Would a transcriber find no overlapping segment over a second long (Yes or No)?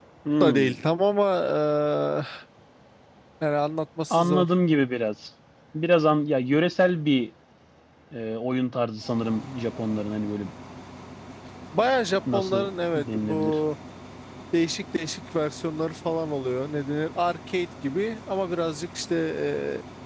No